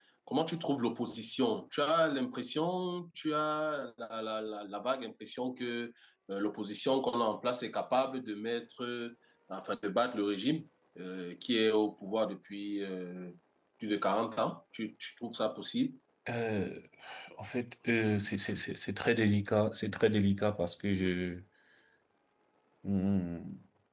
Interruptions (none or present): none